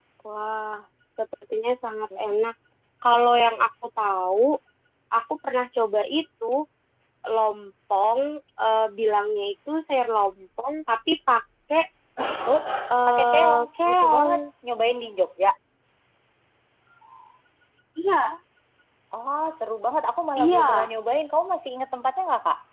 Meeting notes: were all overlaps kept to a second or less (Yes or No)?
No